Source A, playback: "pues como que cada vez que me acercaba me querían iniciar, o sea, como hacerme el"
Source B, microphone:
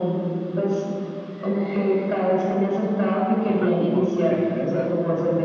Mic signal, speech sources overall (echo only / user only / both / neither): both